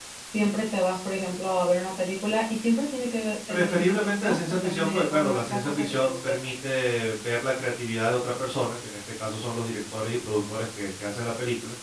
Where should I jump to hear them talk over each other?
3.5 s

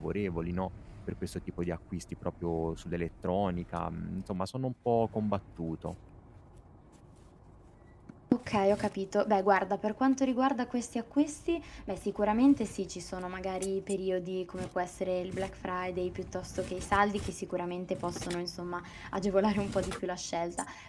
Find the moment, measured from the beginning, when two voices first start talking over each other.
none

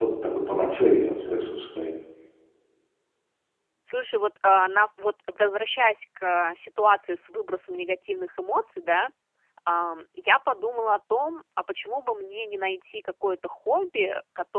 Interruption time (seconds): none

